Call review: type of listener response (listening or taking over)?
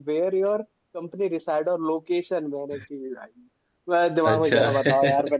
listening